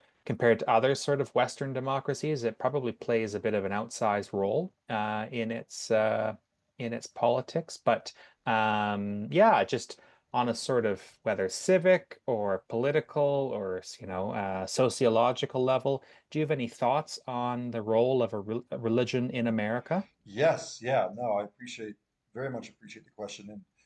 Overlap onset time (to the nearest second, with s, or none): none